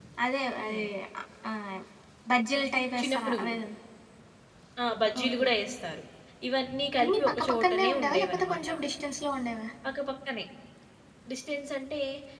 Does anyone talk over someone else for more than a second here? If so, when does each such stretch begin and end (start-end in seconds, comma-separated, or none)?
7.0-8.7